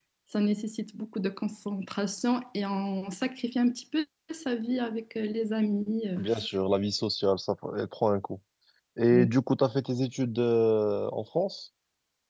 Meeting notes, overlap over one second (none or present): none